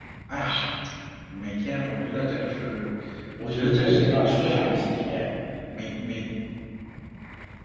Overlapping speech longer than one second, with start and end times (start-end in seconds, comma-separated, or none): 3.4-5.2